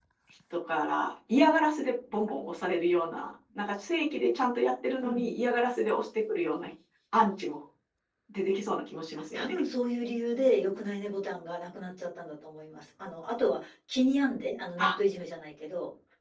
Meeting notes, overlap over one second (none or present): none